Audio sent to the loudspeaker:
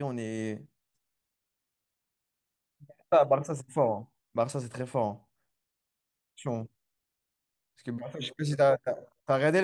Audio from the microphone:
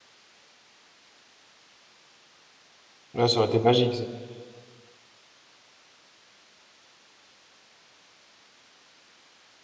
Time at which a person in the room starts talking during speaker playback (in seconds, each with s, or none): 3.1 s